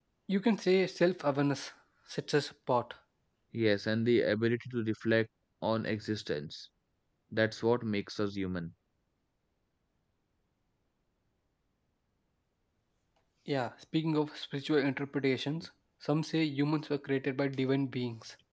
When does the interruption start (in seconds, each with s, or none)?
none